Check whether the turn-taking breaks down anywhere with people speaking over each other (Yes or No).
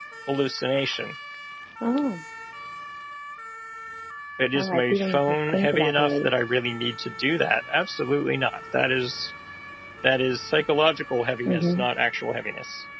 Yes